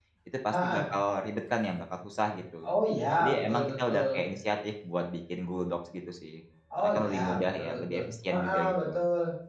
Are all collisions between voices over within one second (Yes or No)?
No